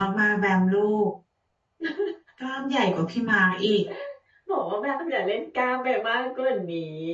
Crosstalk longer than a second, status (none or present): none